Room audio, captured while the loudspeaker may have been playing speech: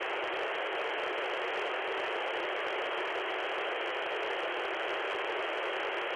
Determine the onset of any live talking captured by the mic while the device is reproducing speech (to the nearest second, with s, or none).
none